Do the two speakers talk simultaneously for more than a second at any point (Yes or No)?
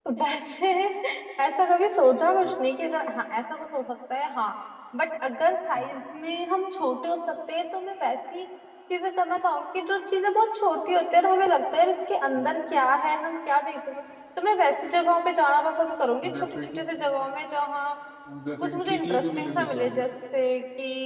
Yes